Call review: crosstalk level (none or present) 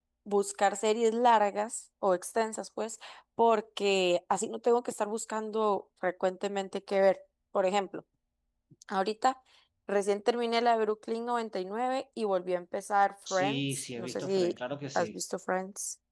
present